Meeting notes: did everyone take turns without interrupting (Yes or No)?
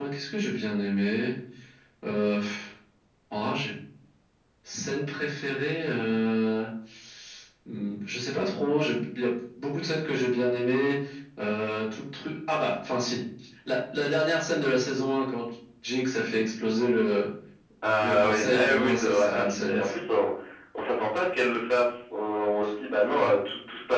No